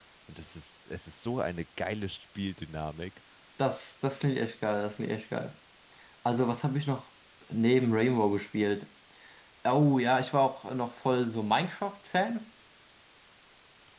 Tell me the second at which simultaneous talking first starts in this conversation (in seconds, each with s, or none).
none